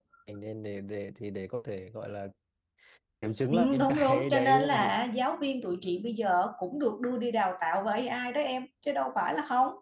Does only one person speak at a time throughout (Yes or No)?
No